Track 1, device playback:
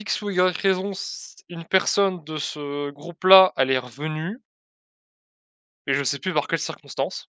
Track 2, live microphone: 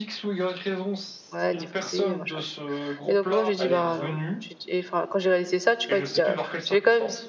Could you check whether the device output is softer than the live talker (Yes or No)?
Yes